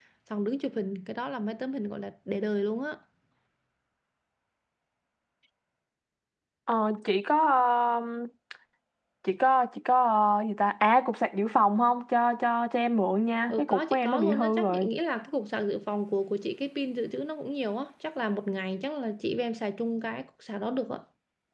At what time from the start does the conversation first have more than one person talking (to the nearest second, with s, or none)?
13 s